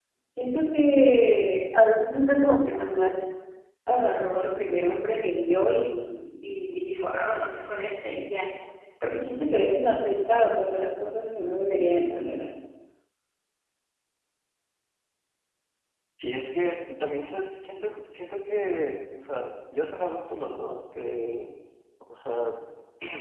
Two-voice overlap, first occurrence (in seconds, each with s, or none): none